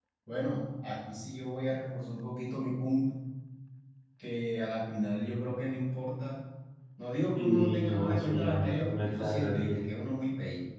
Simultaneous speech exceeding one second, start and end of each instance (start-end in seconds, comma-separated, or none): 7.3-9.8